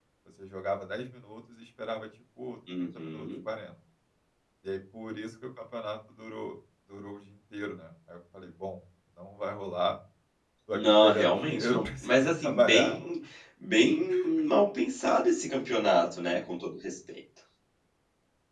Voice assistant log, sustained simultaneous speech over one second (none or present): present